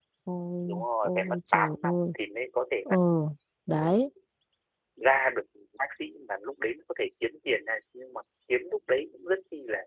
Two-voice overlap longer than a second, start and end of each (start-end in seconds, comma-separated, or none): 0.7-2.1